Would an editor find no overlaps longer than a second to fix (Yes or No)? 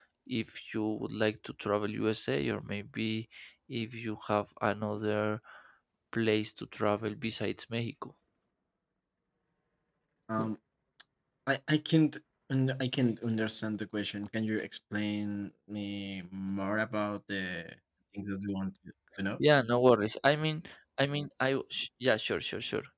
Yes